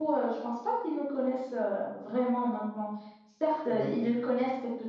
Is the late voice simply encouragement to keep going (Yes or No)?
Yes